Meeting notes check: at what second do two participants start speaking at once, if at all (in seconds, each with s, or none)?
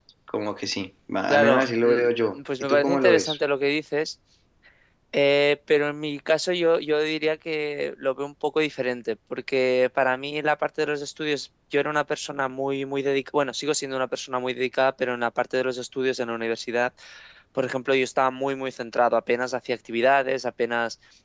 1.3 s